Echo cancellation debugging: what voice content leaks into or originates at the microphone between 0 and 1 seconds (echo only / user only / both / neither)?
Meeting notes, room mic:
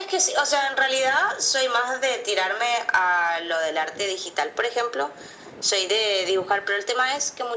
echo only